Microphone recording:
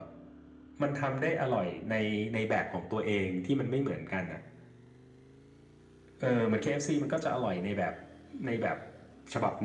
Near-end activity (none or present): none